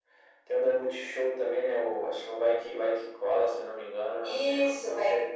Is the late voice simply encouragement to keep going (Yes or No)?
No